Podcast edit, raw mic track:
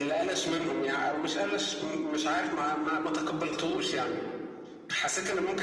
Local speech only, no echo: none

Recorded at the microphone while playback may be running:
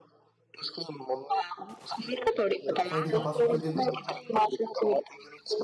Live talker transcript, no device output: तो क्वालिटी का पासवर्ड क्यों दे दूं

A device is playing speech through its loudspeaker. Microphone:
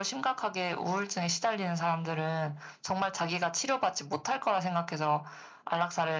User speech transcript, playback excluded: none

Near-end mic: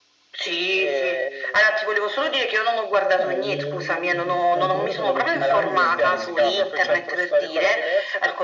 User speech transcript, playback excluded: Eh, mi- mi- quantomeno per la mia città mi viene facile, ecco.

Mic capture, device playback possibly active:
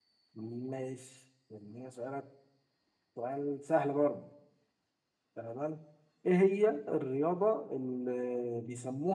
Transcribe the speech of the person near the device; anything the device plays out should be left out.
none

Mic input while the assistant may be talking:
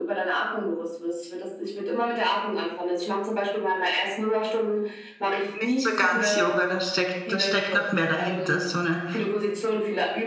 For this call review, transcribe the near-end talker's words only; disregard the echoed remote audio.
Nicht so ganz Yoga, da steckt, da steckt noch mehr dahinter, so eine,

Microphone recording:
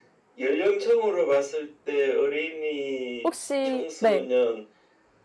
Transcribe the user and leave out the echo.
혹시, 네,

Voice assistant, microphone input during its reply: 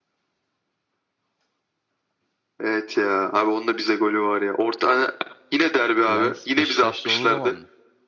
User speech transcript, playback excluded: Lens Beşiktaş'ta olduğu zaman mı?

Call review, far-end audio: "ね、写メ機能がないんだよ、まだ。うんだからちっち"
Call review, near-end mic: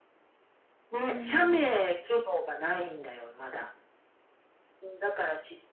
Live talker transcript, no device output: うん。

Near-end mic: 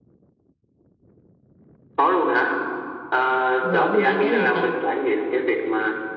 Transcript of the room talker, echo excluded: Mà đảo Fuji có gì ta?

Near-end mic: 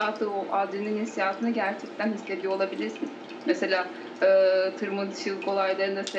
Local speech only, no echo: none

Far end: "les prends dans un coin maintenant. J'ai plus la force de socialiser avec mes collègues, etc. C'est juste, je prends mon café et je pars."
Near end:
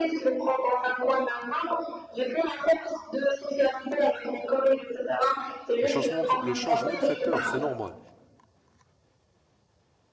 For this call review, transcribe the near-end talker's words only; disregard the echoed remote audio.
Le changement, le changement fait peur, c'est normal.

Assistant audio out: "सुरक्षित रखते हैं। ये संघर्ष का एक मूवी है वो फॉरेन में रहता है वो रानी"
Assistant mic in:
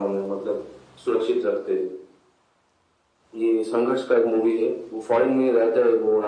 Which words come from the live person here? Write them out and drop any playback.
none

